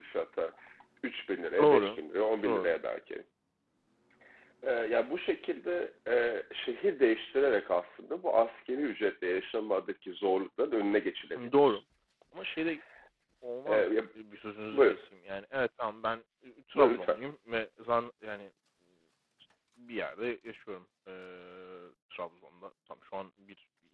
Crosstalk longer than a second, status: none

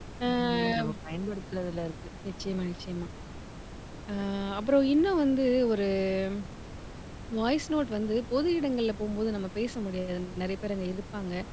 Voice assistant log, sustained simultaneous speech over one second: none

